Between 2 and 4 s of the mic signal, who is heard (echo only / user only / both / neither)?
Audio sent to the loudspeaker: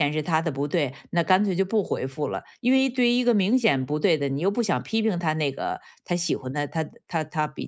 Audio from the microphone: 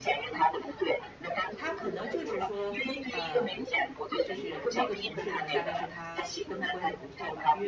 both